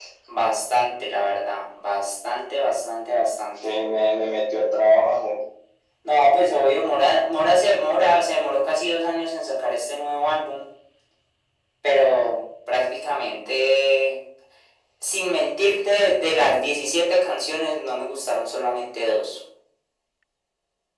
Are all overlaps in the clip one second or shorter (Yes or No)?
Yes